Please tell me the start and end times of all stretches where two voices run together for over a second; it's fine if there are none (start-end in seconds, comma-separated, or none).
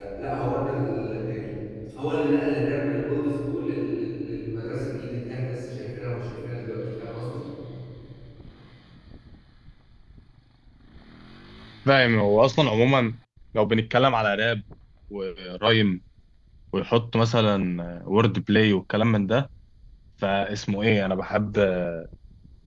none